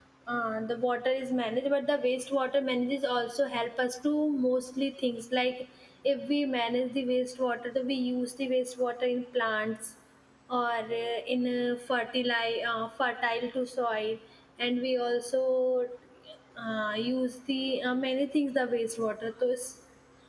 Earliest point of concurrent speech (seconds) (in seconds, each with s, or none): none